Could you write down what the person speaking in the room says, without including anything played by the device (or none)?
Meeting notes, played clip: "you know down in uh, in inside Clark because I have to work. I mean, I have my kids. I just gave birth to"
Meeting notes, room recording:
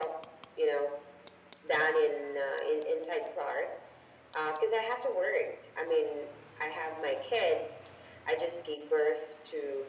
none